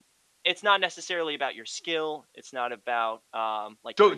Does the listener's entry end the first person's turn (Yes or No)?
Yes